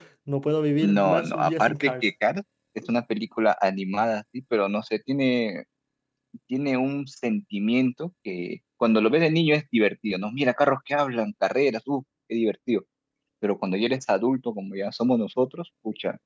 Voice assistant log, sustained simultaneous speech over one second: present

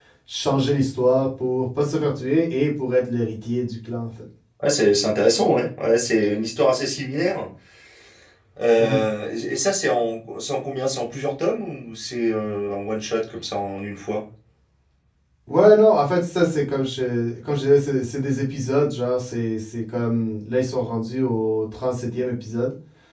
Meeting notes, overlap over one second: none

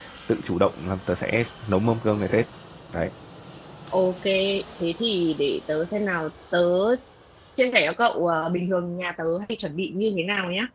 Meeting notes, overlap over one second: none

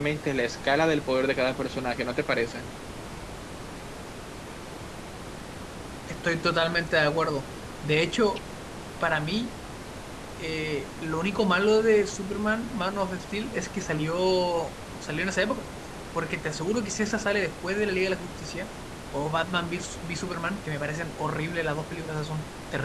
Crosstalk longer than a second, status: none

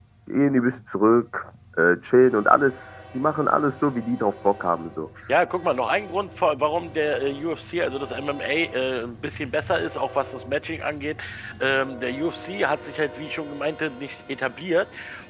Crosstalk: none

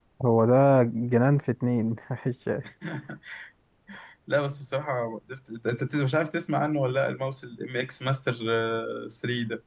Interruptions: none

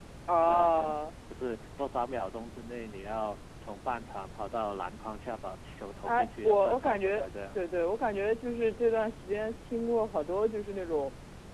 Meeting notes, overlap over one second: present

